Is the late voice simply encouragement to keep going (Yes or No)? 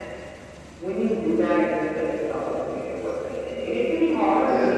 Yes